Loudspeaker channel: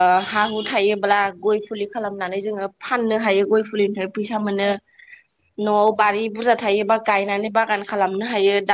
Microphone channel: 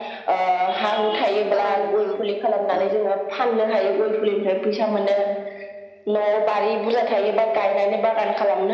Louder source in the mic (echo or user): echo